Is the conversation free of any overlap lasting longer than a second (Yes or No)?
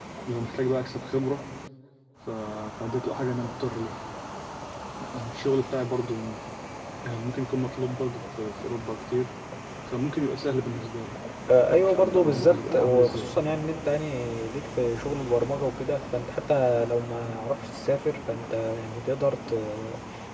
No